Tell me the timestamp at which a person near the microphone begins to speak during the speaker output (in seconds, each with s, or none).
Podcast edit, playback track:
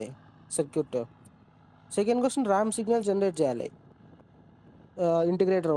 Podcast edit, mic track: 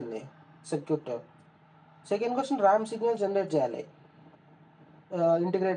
none